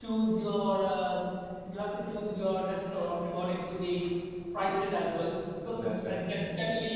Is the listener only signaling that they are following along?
Yes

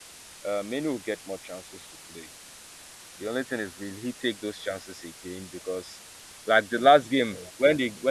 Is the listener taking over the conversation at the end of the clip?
No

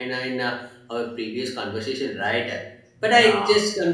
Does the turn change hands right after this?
No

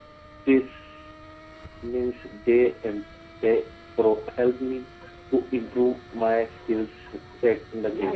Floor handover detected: Yes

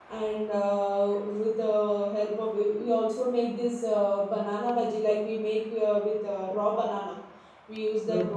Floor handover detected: No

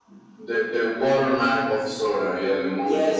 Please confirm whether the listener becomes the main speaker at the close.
Yes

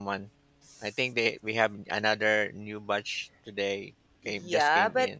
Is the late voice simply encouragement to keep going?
No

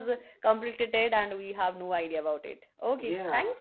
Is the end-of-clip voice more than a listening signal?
Yes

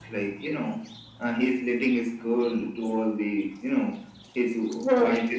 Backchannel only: Yes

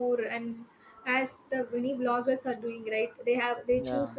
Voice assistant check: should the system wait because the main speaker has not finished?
Yes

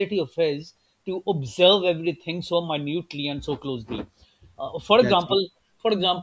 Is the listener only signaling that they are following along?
Yes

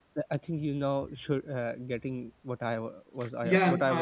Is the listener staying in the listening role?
No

